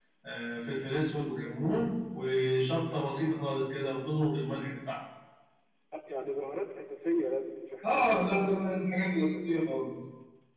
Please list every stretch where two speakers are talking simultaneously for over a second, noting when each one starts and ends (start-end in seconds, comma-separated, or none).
7.9-9.7